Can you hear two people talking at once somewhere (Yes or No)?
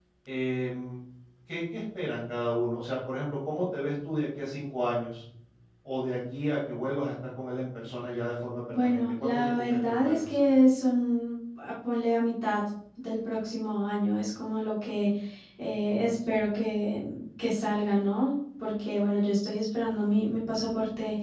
Yes